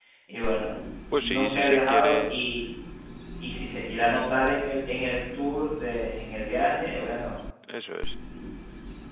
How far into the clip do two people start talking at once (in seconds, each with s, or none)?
1.2 s